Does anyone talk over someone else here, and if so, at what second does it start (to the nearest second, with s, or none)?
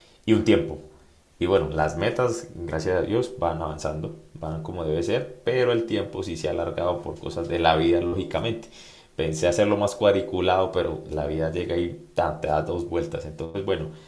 none